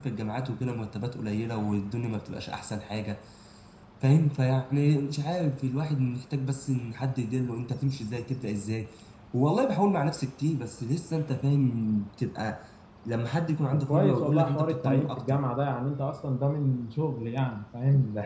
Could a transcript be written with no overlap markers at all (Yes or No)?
No